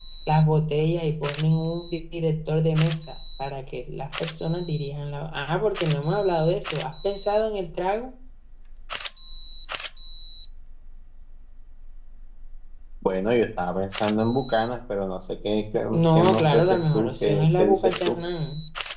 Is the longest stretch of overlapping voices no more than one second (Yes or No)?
No